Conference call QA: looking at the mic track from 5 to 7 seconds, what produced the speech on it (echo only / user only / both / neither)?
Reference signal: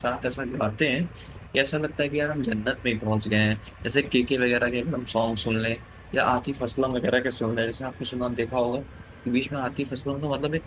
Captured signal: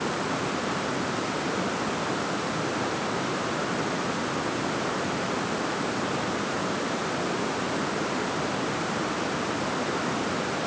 neither